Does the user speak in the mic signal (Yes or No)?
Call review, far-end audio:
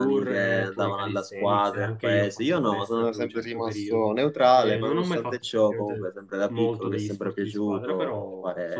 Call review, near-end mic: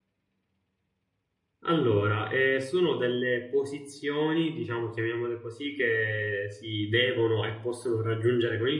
Yes